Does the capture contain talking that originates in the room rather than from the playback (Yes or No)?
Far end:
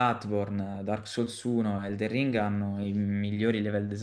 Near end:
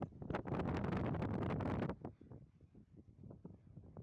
No